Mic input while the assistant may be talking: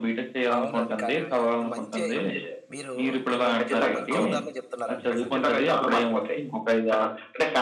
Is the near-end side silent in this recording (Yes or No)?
No